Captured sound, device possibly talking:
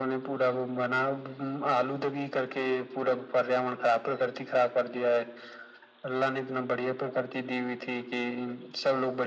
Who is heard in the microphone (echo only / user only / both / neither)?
echo only